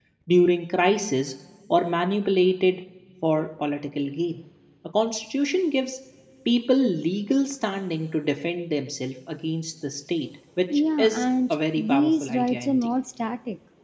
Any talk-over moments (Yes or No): Yes